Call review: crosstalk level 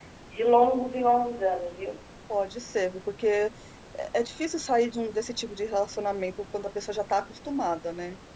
none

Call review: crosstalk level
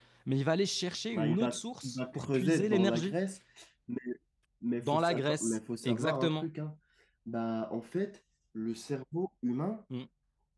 present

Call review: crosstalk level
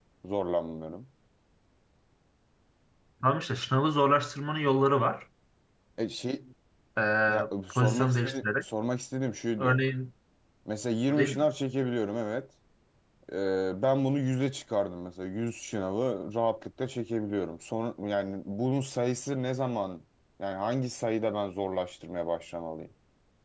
present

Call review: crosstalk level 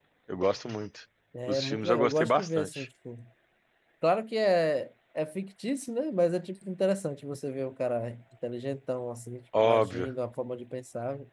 present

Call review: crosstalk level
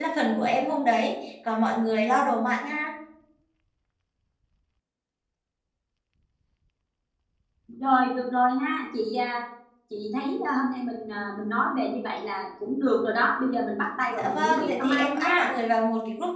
present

